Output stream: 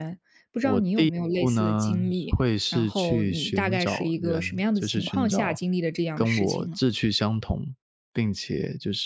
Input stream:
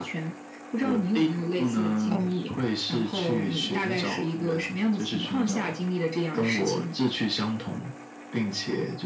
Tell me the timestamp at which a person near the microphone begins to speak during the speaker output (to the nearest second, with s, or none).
2 s